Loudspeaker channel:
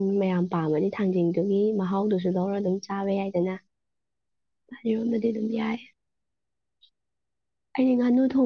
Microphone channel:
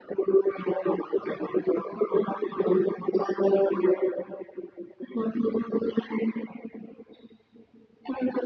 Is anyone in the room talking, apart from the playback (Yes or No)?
No